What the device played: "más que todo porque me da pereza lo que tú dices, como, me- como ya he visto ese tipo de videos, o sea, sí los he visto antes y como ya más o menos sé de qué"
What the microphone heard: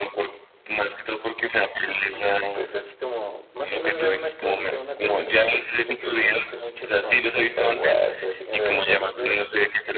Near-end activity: present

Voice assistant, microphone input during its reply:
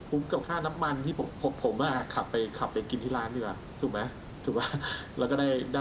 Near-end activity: none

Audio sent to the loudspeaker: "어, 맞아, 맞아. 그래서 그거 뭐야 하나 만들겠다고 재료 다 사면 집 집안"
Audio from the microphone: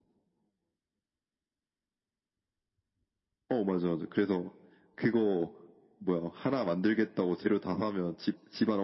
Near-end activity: none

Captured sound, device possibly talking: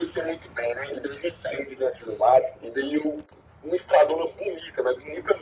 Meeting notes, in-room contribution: none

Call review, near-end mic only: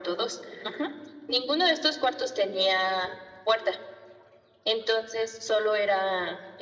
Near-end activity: none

